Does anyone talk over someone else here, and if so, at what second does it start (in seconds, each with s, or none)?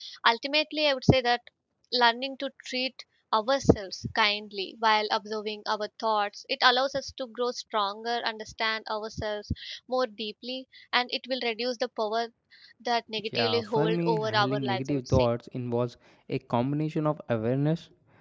13.4 s